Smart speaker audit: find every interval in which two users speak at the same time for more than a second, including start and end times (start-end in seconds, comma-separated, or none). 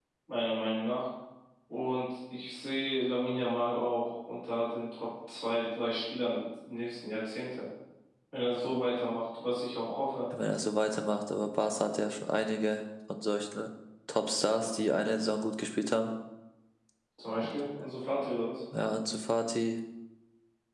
none